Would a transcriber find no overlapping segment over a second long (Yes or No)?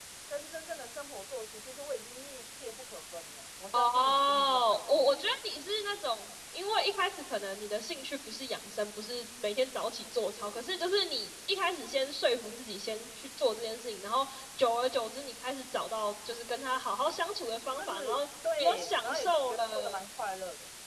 No